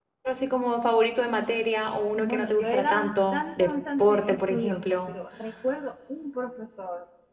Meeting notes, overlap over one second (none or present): present